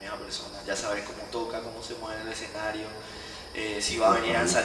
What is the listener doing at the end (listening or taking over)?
listening